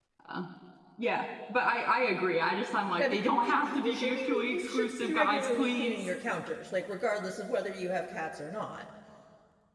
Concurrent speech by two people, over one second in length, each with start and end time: 3.0-6.1

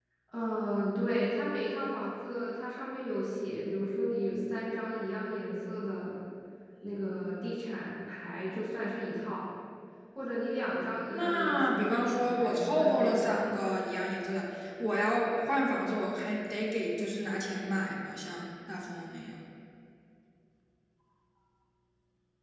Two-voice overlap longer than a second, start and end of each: 11.1-13.5

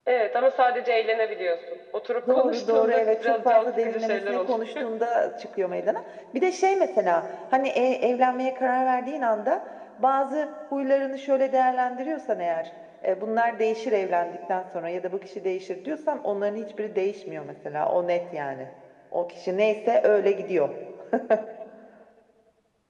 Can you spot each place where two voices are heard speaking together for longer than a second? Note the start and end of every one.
2.3-4.6

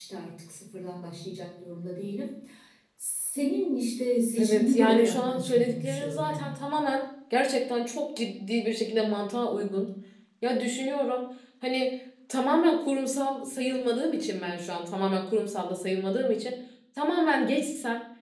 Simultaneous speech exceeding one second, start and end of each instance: 4.4-6.5

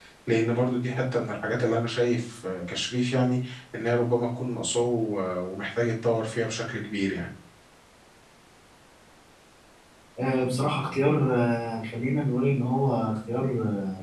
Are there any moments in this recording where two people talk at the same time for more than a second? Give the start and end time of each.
none

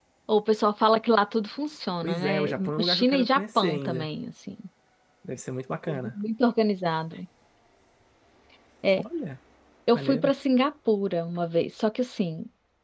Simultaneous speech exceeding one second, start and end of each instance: 2.0-4.1

